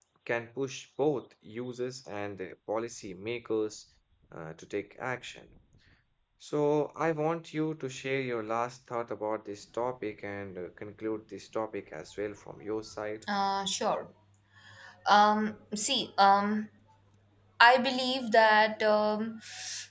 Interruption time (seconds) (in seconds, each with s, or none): none